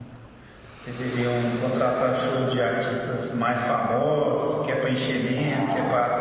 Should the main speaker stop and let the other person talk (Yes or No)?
No